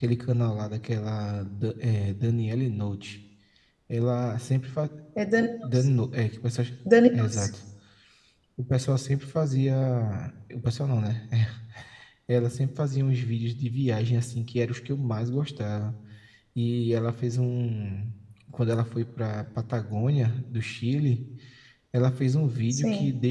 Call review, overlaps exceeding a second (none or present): none